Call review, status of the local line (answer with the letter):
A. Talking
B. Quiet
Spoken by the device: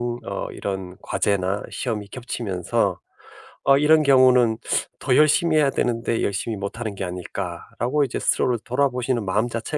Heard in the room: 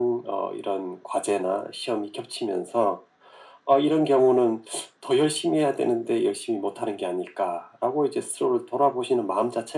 B